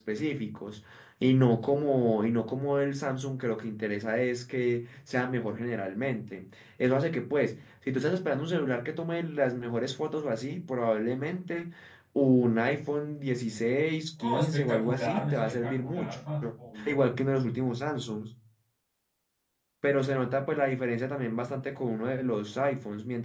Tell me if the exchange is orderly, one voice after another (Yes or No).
No